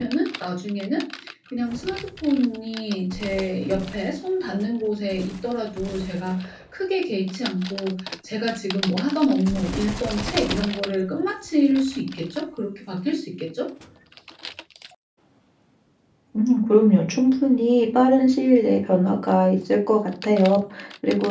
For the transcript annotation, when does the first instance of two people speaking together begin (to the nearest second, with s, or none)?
none